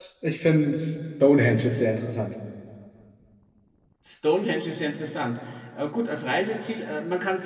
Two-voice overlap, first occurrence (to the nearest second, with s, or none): none